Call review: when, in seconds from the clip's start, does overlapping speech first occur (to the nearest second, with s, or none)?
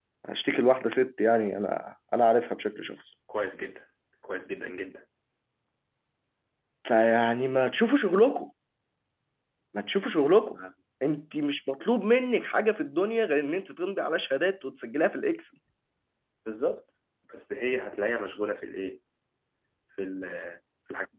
none